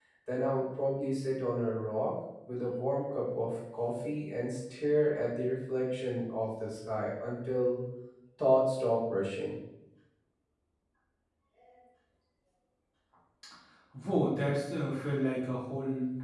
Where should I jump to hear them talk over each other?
none

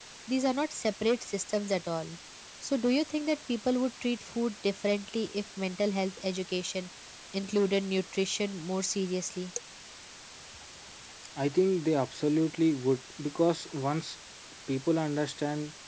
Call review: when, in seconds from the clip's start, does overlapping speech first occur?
none

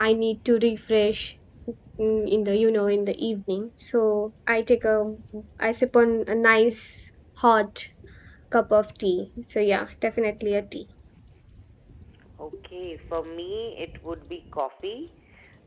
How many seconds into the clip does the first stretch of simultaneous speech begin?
none

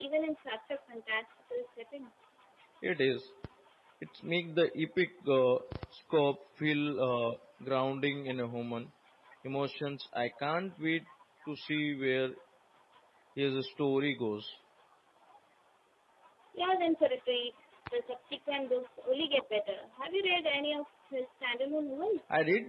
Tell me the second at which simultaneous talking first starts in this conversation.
none

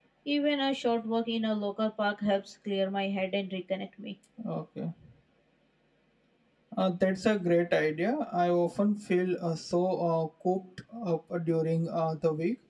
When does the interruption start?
none

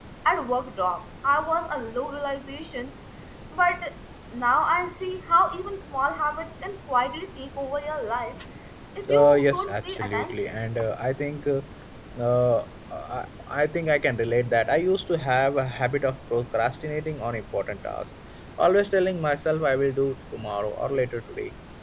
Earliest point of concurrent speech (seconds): 9.1 s

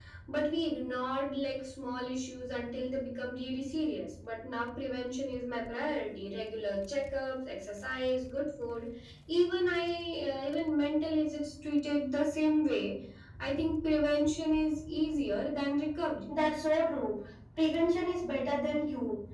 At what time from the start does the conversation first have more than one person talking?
none

